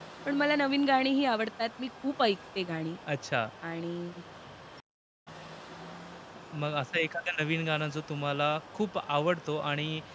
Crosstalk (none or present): none